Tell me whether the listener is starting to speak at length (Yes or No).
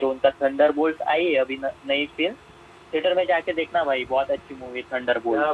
Yes